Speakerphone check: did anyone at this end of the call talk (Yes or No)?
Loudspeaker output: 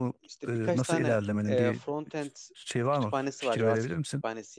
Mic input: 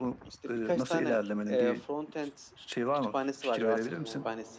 Yes